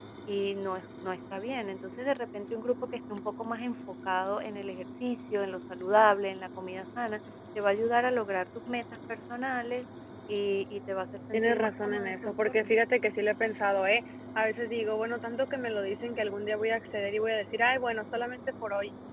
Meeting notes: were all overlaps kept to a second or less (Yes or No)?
No